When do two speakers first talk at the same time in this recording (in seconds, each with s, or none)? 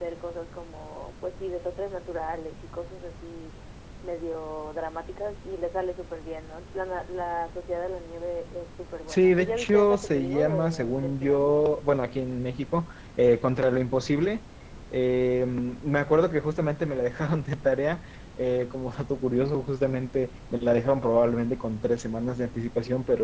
9.1 s